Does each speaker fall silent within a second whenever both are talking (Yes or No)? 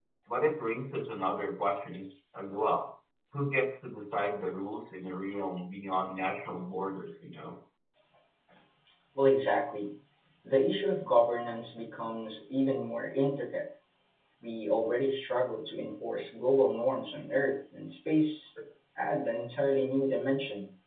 Yes